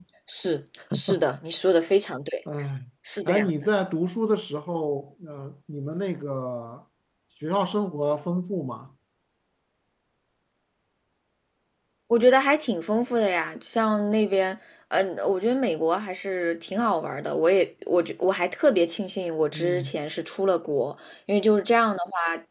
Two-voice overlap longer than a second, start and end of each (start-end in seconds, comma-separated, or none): none